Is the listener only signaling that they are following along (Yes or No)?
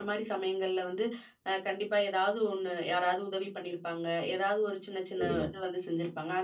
Yes